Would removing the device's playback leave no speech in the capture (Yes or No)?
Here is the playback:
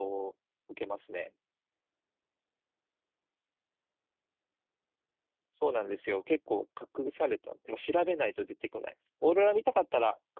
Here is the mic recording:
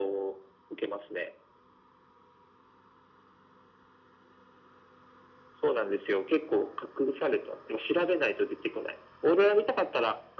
Yes